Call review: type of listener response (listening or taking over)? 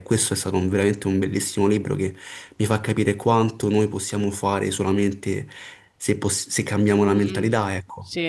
taking over